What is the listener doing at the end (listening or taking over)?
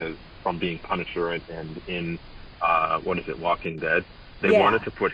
listening